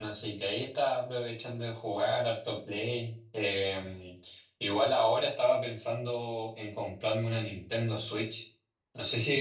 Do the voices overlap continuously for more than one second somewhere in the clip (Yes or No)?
No